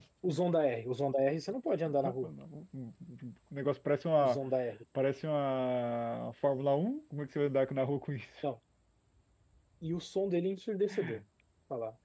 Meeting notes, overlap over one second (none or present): none